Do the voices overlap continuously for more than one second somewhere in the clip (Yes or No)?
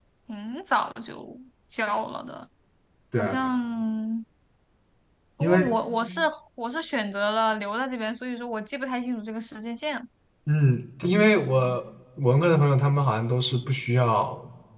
No